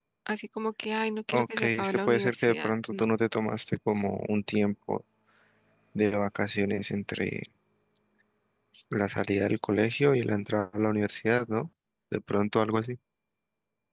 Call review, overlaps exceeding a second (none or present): present